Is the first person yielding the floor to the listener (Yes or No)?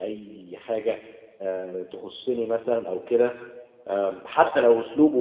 No